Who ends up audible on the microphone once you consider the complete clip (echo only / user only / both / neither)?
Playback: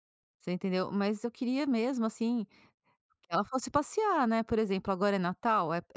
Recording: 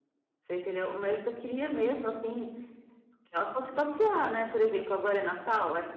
echo only